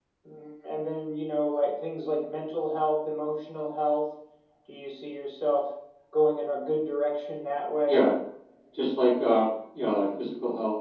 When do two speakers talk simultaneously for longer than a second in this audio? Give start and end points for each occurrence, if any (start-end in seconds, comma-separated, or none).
none